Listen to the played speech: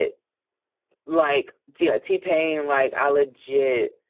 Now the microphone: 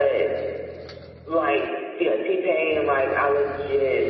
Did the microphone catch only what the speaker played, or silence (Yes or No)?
Yes